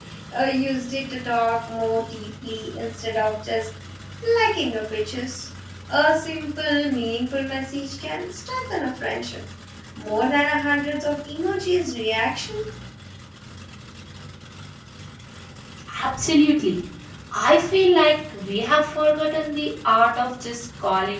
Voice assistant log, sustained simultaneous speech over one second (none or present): none